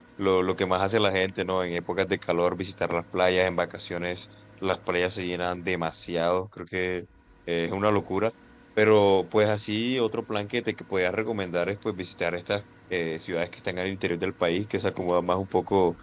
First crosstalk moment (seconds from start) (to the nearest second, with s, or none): none